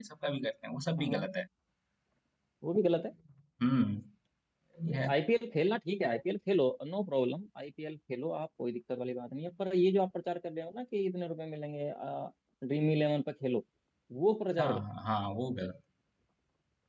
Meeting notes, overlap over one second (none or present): none